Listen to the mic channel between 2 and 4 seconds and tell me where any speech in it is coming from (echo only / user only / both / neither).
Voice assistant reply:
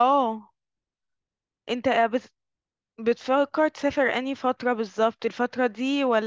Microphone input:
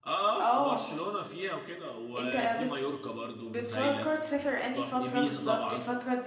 both